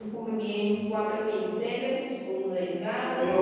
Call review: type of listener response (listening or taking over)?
taking over